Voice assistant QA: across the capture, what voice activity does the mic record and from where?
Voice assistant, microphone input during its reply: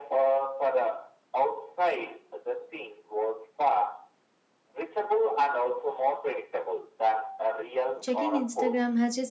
both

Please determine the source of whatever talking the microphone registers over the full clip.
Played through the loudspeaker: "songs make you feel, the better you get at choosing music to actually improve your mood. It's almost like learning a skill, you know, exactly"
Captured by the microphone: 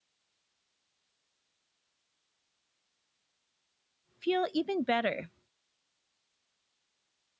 user only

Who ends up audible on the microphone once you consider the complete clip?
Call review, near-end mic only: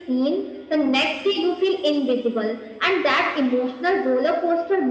echo only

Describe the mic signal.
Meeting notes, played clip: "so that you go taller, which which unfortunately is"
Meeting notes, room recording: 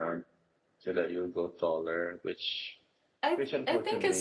both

